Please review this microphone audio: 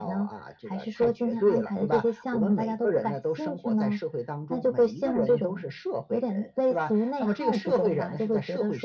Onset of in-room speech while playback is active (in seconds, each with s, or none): none